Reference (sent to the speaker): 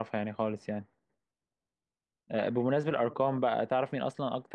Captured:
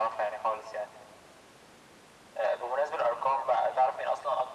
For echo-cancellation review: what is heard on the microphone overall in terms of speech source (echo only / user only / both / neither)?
echo only